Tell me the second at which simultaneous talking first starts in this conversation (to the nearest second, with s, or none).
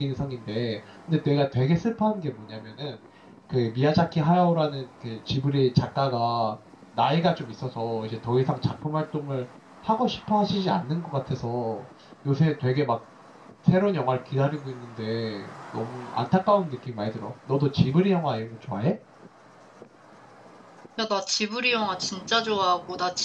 none